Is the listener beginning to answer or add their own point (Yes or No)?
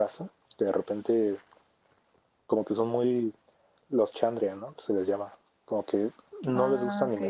No